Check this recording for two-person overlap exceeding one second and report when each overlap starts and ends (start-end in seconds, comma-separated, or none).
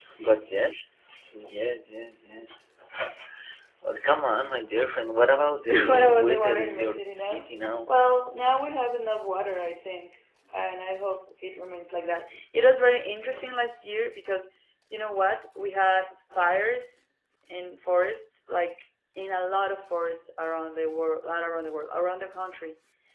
5.7-7.5